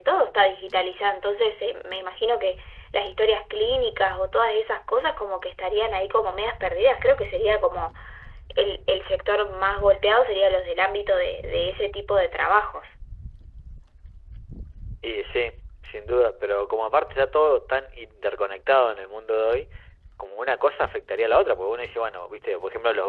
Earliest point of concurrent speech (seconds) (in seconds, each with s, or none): none